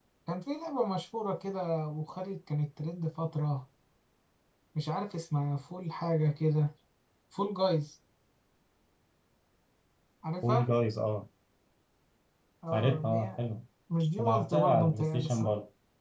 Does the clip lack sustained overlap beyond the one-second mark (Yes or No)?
No